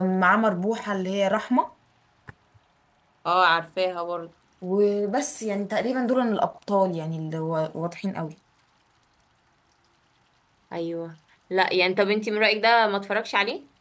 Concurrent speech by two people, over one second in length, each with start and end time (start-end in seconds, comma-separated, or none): none